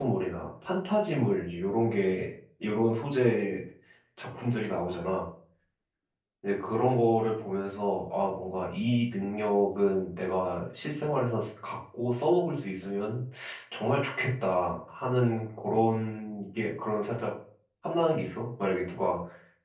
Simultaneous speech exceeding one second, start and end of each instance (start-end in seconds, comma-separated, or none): none